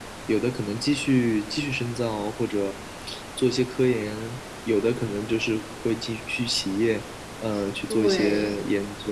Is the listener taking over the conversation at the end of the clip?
No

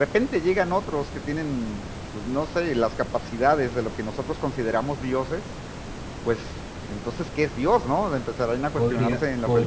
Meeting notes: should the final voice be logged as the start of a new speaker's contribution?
Yes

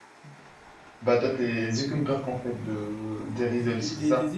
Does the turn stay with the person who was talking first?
No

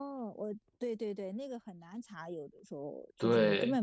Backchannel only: Yes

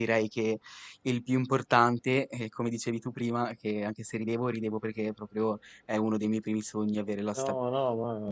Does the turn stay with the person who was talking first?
No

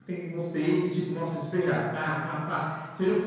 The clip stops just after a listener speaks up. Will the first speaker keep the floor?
Yes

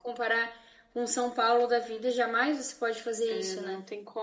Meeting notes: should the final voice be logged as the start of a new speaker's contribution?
Yes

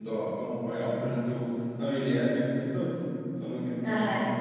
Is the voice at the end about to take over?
Yes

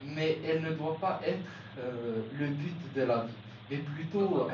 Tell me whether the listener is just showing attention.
Yes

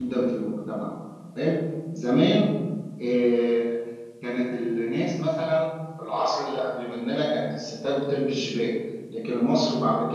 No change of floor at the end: Yes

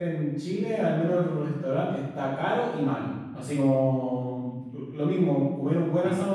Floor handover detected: No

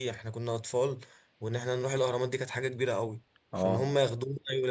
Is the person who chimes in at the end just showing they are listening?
Yes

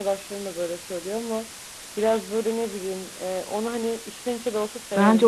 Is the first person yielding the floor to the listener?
Yes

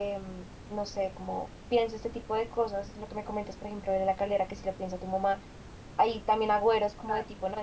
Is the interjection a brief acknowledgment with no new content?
Yes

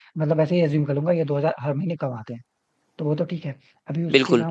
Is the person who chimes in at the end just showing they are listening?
Yes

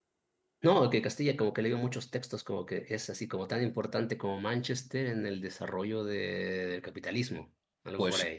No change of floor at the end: No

